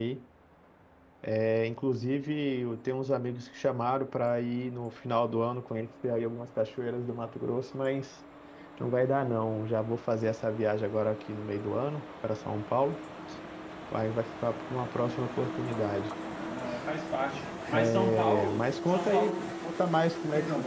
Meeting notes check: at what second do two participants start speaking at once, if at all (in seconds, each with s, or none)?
17.8 s